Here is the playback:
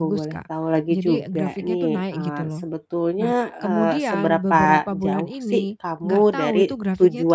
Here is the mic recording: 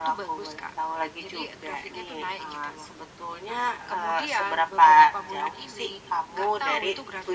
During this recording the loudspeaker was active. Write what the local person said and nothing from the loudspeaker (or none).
none